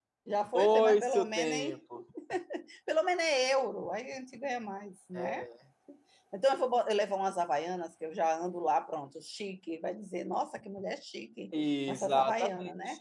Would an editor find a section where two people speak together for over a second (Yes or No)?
Yes